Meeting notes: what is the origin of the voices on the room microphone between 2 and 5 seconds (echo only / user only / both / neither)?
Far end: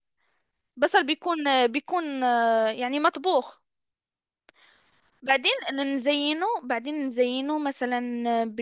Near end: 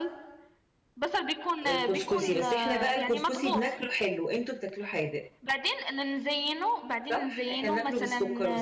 both